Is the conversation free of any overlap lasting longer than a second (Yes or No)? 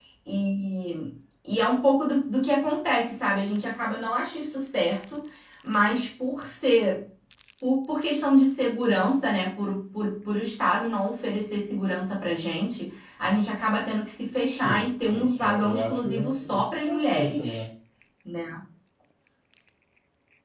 No